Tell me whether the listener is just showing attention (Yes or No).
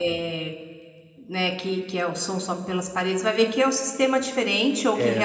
Yes